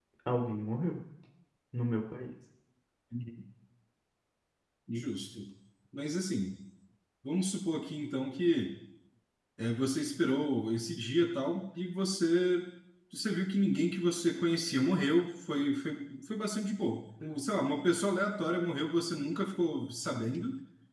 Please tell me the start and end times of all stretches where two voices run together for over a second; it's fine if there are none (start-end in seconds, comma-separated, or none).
none